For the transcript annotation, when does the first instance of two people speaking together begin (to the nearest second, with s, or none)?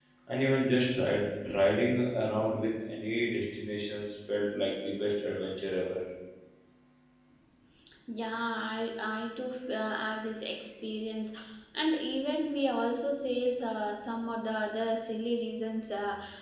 none